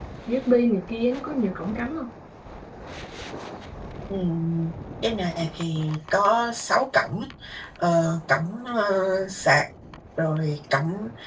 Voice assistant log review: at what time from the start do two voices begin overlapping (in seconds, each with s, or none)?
none